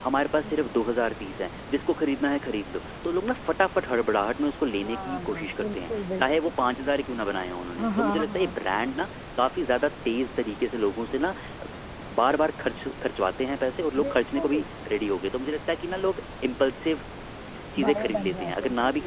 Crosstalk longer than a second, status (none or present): present